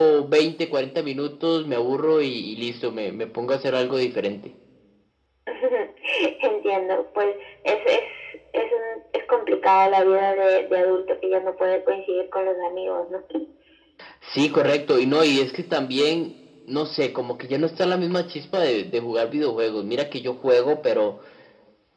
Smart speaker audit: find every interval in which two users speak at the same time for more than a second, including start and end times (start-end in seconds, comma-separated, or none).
none